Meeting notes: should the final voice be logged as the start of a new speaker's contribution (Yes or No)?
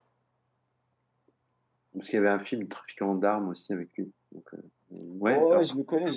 Yes